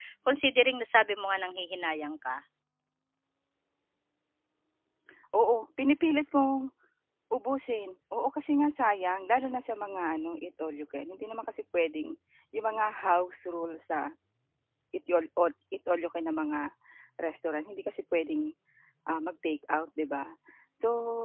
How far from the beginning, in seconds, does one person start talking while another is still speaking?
none

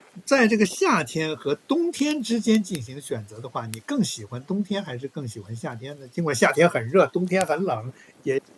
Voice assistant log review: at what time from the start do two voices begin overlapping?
none

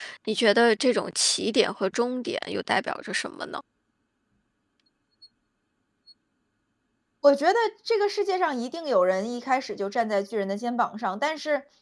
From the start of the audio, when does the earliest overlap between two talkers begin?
none

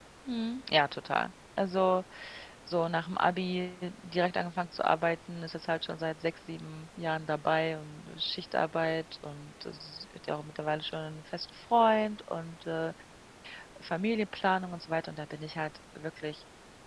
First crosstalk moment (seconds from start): none

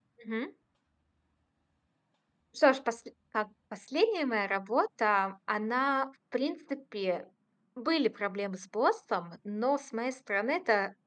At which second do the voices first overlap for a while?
none

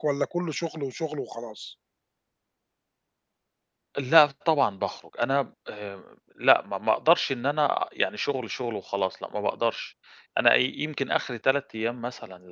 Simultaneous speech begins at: none

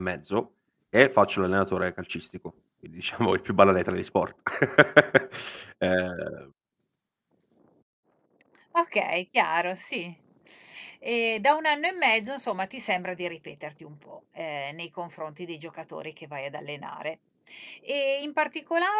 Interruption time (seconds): none

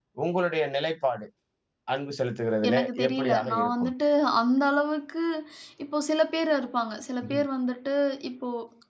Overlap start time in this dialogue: 2.7 s

